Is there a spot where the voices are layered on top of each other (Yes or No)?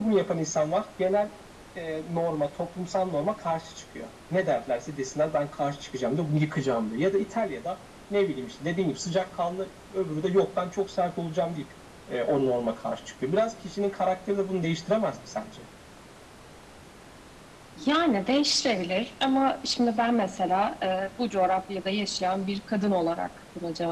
No